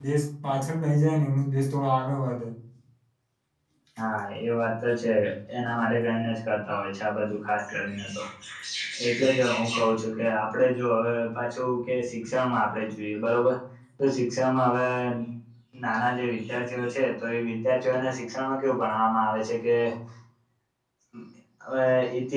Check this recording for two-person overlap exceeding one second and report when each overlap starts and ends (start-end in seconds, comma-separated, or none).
none